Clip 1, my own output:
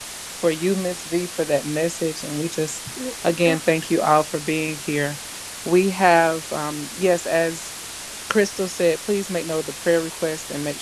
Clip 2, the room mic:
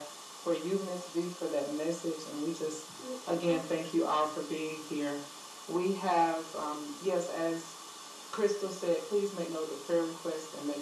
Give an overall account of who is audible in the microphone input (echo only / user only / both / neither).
echo only